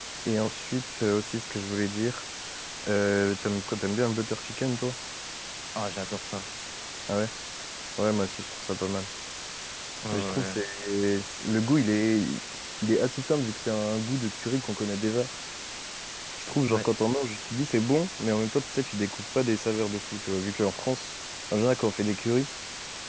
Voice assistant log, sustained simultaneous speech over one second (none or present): none